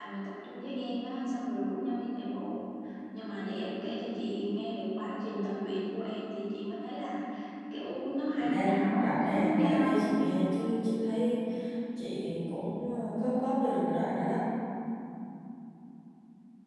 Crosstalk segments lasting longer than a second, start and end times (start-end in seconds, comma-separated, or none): 8.4-10.0